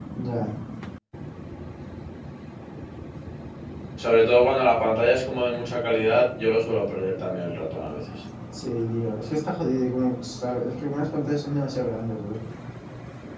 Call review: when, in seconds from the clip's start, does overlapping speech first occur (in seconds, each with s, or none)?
none